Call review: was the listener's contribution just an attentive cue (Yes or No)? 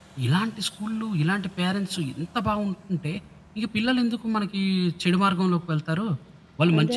Yes